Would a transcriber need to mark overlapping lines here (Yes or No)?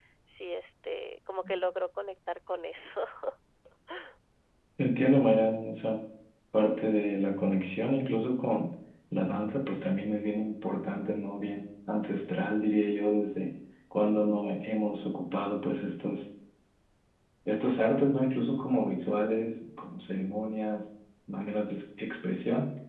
No